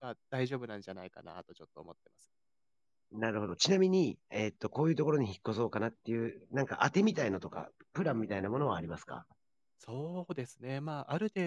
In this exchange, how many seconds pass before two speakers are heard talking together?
none

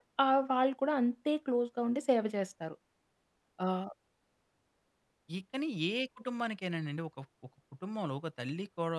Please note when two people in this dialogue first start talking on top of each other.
none

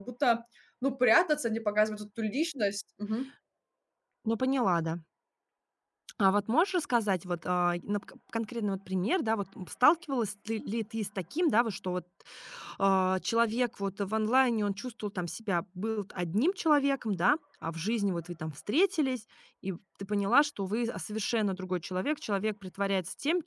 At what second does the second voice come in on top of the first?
none

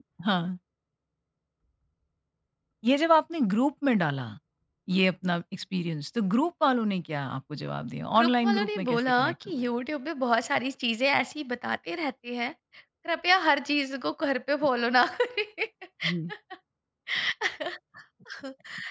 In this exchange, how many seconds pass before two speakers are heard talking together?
8 s

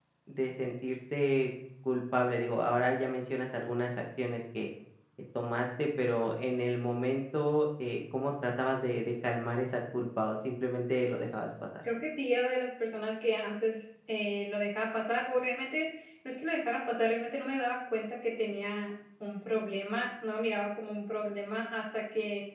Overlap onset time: none

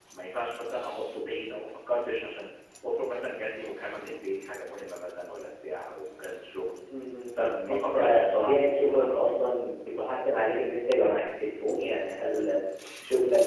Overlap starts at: 7 s

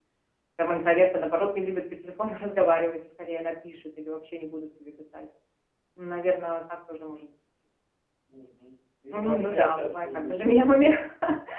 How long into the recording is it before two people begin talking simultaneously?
9 s

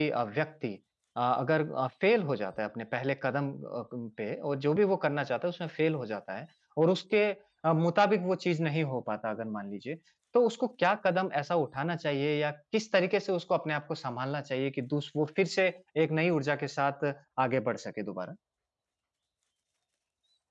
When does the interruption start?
none

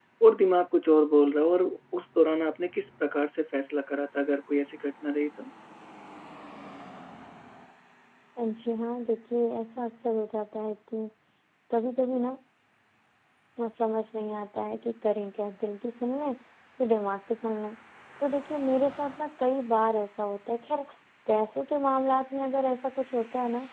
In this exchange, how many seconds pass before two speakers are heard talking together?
none

